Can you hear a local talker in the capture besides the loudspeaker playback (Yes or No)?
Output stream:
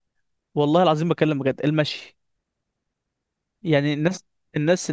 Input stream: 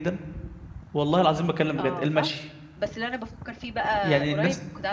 Yes